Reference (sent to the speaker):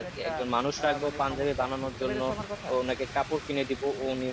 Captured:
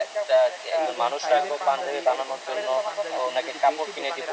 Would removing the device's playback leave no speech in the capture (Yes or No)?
No